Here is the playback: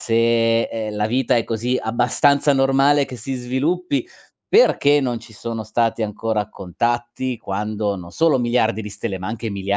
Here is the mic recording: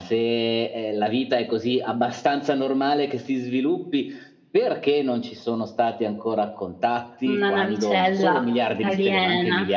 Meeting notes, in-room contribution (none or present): present